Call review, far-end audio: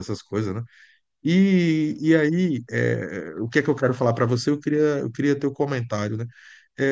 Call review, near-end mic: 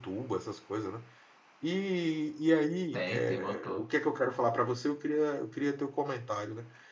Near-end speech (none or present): present